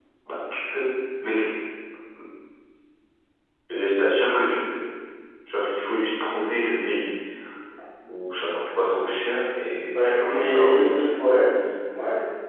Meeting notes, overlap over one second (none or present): present